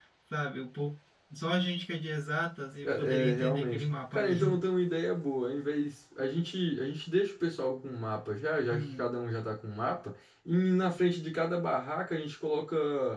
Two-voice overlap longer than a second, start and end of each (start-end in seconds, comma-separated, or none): 2.8-4.6